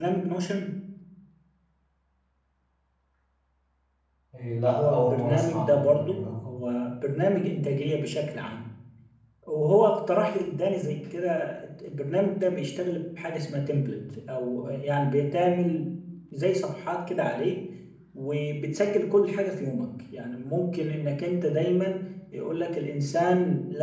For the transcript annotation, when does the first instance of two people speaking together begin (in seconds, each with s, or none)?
4.7 s